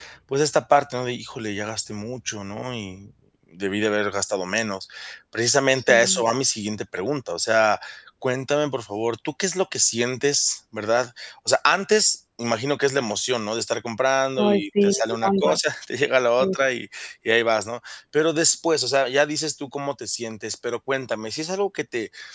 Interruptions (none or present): present